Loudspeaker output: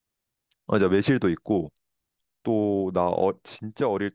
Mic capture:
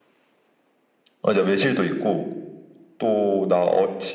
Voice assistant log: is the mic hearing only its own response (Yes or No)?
Yes